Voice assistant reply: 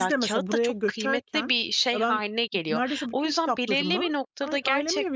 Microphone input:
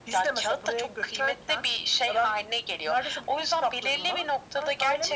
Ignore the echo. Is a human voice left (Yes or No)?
No